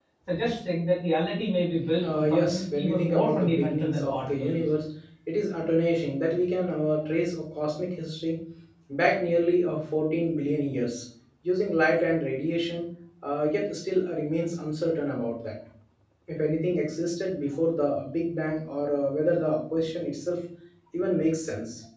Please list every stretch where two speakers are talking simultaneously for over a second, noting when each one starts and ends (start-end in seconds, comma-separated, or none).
2.0-4.6